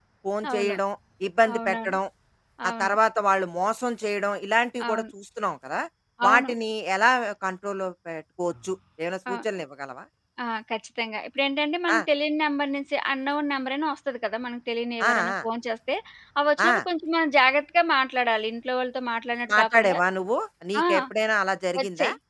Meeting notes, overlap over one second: none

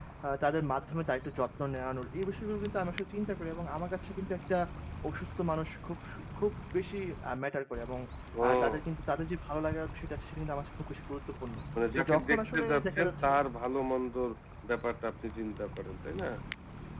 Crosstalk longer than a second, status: present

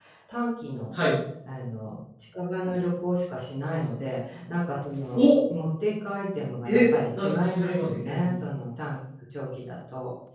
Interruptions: present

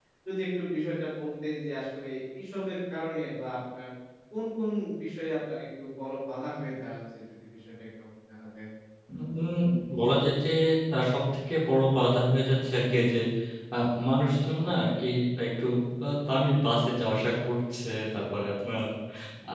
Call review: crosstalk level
none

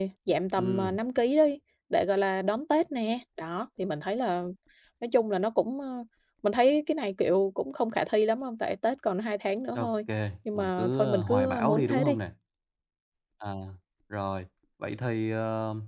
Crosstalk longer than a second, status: present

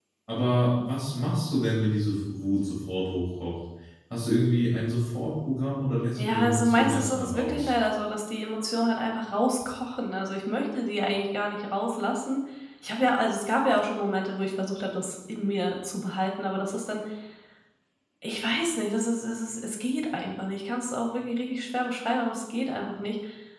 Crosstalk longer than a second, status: present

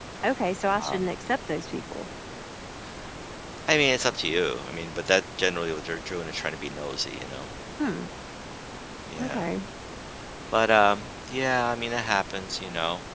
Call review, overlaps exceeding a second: none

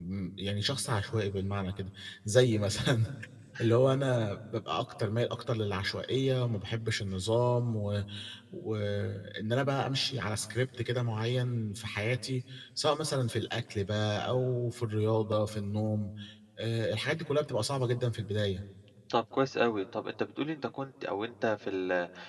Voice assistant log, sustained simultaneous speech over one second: none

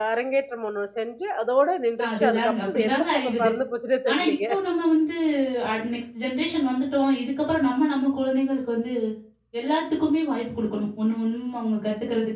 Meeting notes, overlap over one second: present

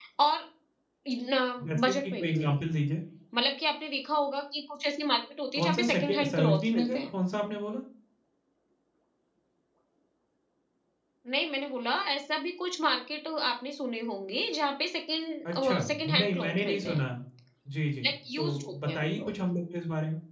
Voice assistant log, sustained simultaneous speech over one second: present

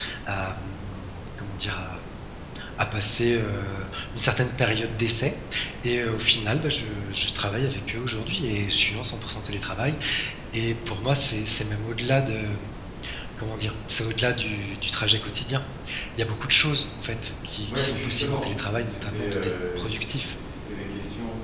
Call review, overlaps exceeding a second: present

